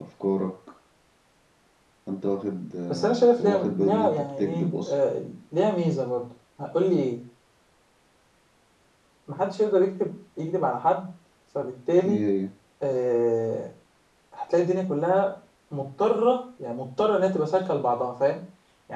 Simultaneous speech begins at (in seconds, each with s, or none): 2.9 s